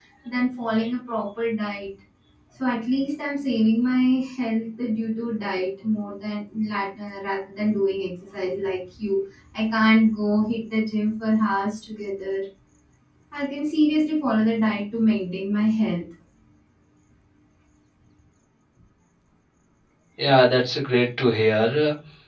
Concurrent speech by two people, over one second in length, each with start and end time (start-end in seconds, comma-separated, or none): none